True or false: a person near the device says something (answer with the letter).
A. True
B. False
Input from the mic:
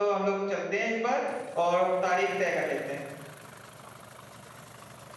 A